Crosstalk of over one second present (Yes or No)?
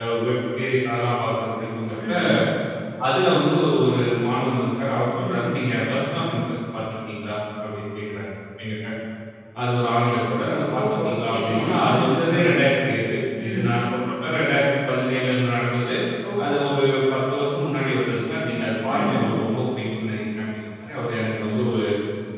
Yes